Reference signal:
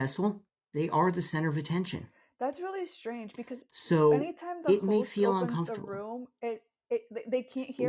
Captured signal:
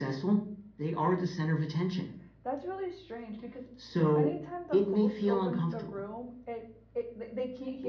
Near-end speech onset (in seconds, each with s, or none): none